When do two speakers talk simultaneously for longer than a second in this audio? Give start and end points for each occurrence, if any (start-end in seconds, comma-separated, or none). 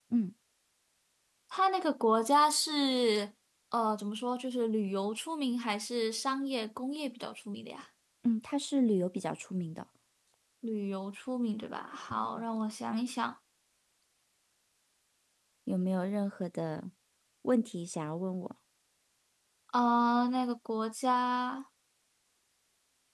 none